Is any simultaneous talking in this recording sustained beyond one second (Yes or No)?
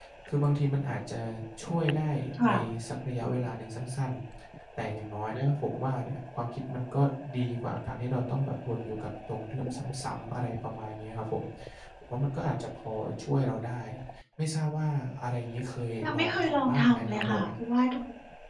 Yes